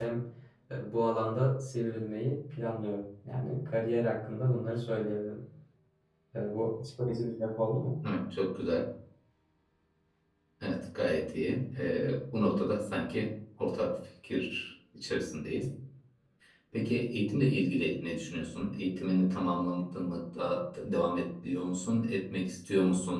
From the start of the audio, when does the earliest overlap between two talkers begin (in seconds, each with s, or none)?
none